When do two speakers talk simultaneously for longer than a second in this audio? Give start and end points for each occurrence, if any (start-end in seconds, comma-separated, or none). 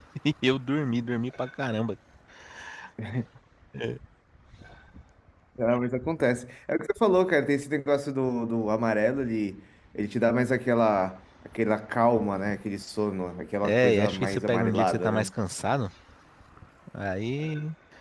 13.6-15.3